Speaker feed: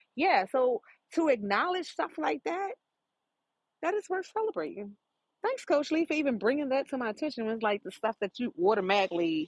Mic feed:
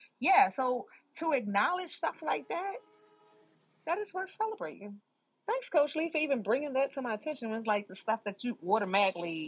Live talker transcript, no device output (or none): none